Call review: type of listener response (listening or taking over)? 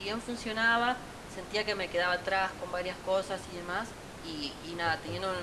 listening